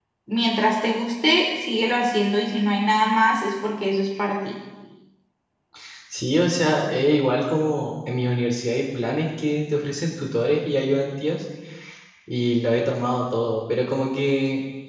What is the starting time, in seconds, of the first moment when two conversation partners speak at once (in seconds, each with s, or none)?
none